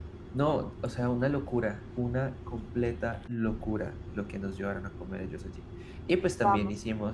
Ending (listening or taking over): taking over